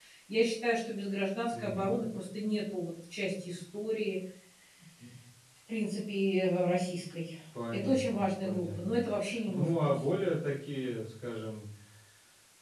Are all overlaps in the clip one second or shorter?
No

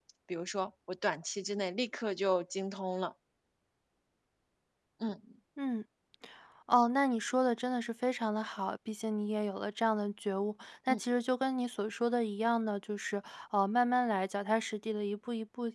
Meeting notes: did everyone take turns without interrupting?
Yes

